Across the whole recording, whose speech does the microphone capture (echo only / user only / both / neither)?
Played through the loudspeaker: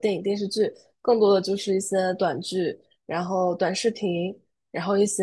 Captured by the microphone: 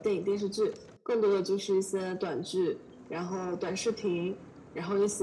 echo only